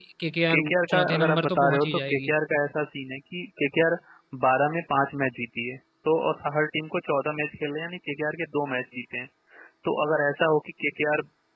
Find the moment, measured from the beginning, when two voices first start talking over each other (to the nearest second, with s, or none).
1 s